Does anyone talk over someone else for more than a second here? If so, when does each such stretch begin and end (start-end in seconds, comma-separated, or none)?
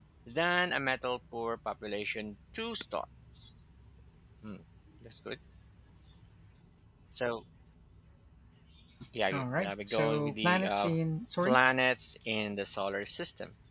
9.3-11.0